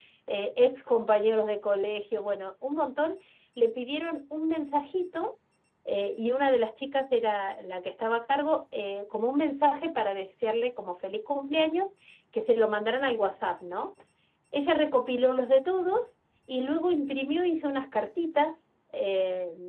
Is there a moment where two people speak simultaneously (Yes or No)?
No